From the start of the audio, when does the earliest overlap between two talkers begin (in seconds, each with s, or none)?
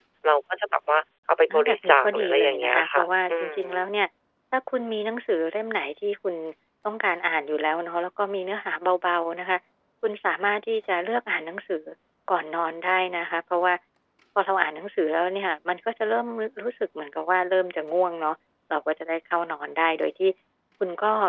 1.5 s